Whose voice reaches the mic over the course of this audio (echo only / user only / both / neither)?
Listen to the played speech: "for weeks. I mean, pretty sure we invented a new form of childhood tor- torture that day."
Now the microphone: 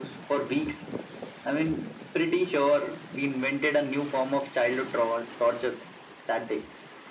echo only